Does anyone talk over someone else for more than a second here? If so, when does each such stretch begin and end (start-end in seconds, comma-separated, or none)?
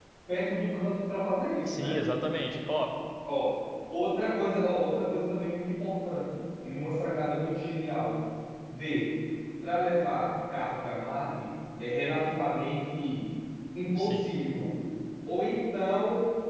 none